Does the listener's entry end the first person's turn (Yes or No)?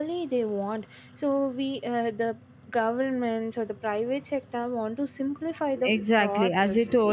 Yes